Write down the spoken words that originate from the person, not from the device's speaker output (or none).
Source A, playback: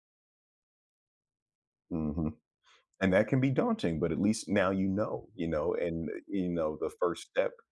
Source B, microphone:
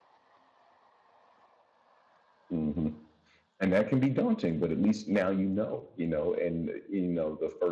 none